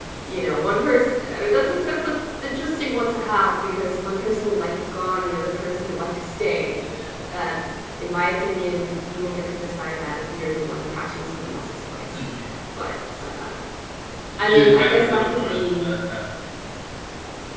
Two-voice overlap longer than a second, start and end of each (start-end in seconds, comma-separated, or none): 14.5-15.9